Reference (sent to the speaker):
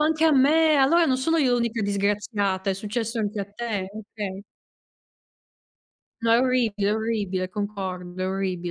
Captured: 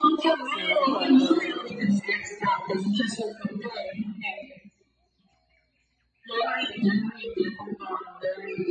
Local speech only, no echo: Sono d'accordo.

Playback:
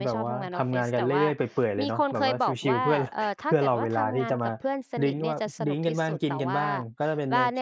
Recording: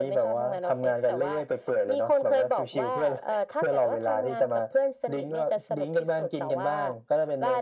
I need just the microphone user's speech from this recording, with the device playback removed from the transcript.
none

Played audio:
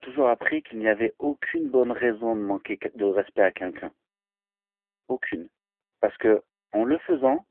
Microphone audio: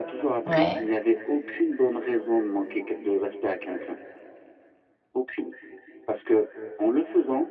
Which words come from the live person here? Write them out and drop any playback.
Ouais.

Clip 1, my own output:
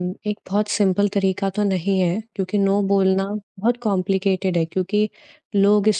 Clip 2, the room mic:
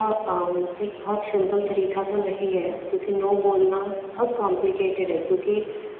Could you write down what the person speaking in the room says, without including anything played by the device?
none

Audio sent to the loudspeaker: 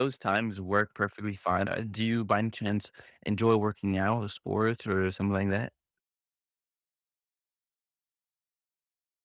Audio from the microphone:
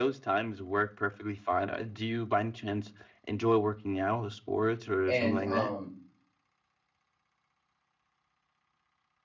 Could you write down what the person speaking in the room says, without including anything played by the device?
And um,

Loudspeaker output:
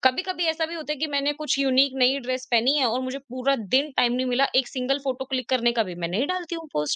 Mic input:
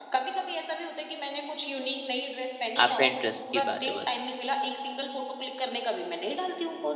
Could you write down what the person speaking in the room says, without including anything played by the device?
आपका इंटरेस्ट की बात है बस।

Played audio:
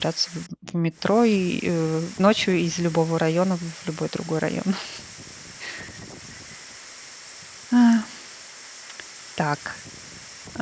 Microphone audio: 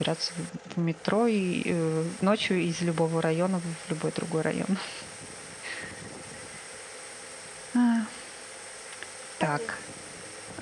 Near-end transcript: Конечно,

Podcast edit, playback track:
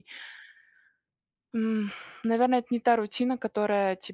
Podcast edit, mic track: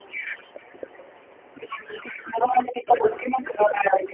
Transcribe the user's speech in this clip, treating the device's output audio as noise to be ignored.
none

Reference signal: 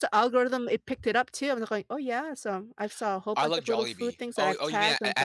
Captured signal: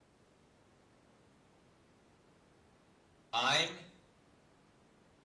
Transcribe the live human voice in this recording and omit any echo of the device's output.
I'm

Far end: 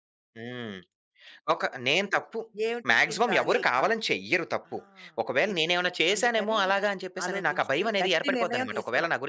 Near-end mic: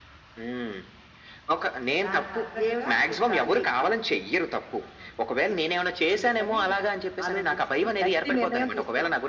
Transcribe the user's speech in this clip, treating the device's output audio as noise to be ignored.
దానికి తగ్గట్టుగా

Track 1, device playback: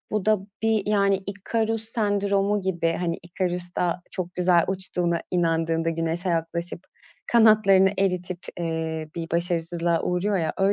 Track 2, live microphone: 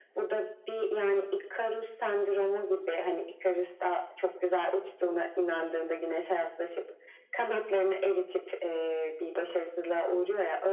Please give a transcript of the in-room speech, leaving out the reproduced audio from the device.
none

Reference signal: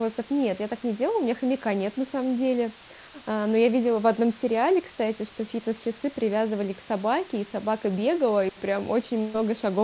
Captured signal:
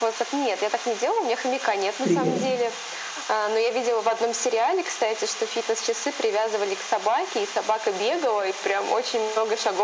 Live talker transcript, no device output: триллеры?

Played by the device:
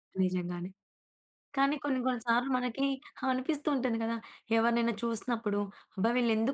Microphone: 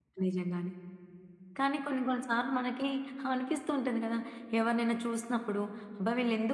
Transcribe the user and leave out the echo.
none

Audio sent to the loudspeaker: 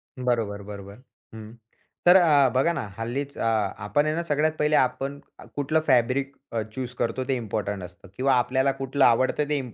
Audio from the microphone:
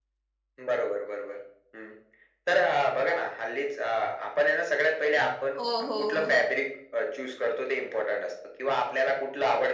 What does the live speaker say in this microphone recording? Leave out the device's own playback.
हो, हो, हो, हो.

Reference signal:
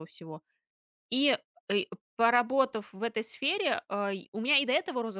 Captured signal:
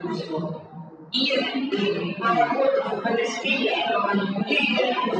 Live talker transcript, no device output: М, понятно.

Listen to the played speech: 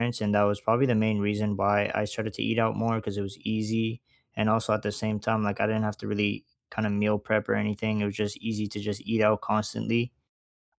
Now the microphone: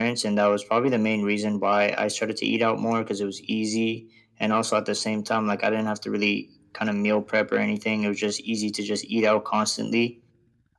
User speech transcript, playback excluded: none

